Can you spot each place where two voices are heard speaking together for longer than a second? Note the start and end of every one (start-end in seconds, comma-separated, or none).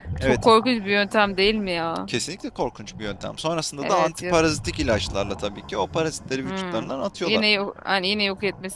none